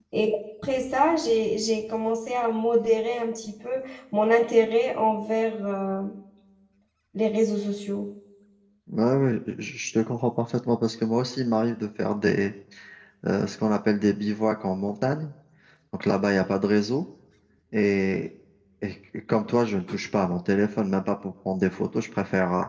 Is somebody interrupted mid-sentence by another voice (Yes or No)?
No